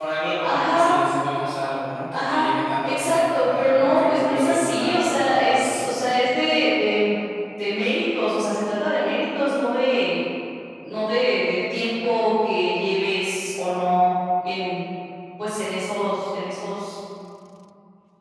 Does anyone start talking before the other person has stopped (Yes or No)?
Yes